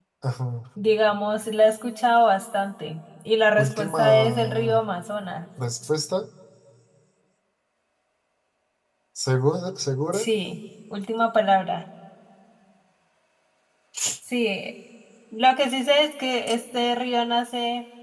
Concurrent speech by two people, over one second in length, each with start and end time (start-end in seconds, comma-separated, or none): 3.6-4.8